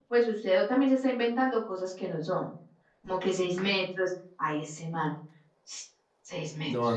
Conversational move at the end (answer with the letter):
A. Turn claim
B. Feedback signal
A